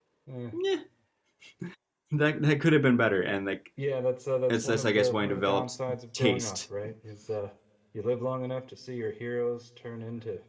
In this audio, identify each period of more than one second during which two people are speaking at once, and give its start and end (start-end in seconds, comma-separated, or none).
4.5-5.8